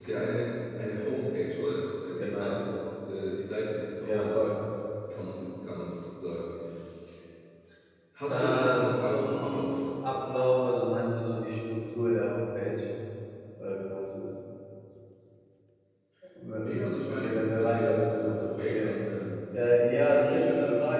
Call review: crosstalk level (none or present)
present